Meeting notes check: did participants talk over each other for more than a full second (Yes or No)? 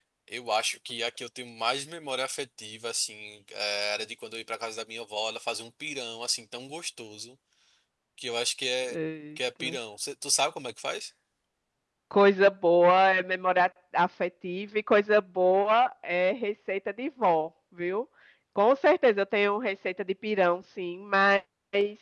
No